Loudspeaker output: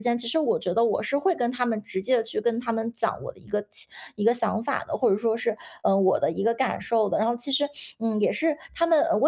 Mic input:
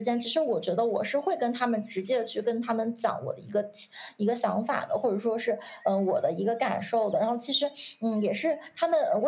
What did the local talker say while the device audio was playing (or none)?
none